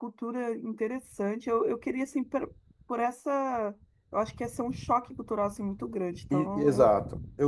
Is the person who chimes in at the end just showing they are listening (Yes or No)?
No